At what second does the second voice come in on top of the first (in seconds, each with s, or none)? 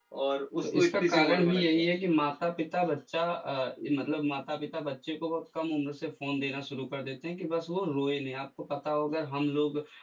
0.6 s